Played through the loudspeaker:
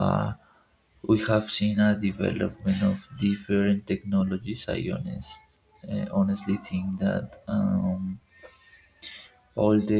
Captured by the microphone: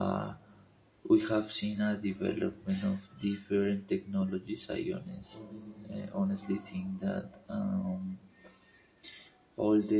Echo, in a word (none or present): present